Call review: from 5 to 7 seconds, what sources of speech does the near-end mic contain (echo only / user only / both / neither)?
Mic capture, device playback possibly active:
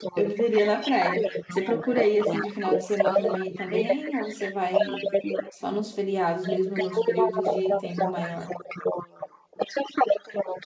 both